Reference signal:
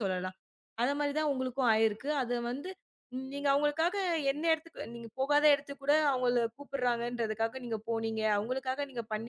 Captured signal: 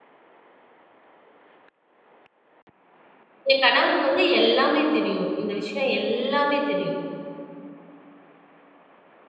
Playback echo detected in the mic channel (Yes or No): No